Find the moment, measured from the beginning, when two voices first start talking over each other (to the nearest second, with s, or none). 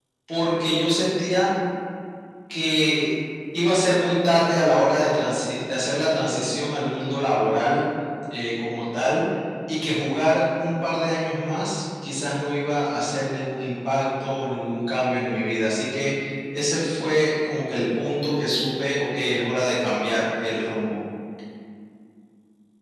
none